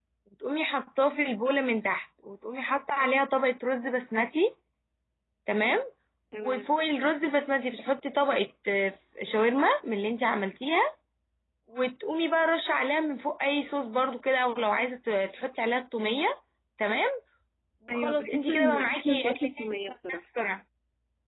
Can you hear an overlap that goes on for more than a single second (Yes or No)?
Yes